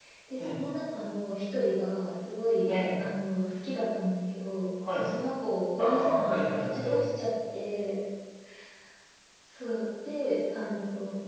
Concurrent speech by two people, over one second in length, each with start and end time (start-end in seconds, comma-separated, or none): 5.8-7.0